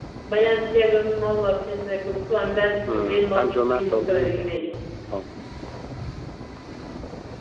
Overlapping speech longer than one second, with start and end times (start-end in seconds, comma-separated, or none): 2.9-4.7